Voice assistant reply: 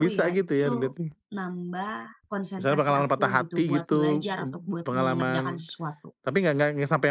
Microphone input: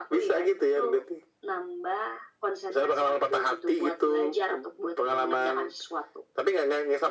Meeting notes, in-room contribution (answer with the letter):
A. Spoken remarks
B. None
B